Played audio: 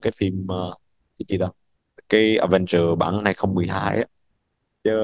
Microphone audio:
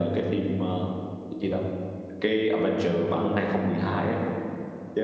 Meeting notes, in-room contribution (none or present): none